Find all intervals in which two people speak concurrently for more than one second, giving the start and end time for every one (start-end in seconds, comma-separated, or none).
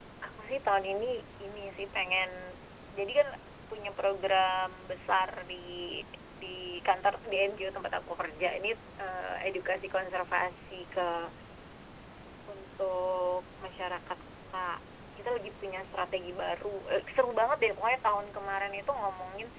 none